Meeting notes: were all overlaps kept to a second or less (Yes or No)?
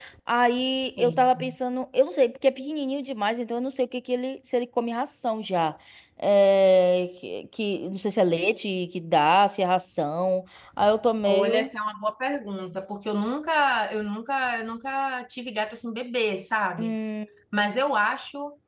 Yes